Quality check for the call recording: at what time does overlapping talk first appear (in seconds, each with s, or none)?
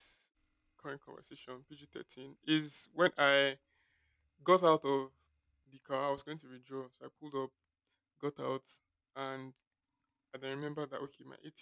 none